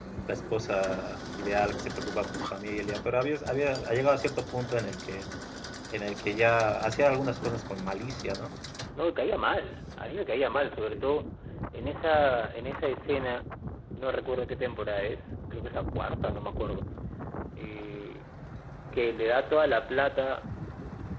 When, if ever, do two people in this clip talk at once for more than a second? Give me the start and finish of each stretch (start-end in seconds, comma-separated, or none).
none